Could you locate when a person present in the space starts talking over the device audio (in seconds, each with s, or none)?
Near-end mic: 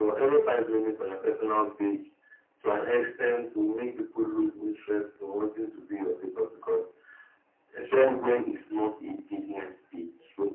none